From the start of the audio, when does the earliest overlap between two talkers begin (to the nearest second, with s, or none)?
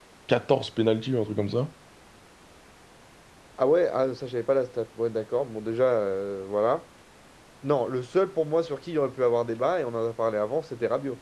none